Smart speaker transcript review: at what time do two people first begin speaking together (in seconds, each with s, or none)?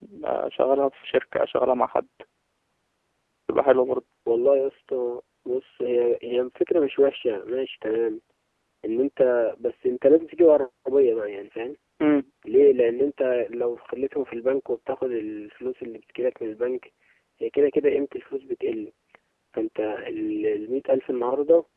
none